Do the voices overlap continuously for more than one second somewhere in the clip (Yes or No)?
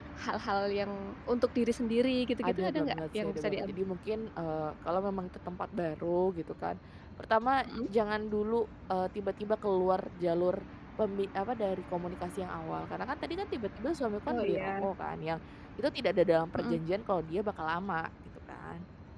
Yes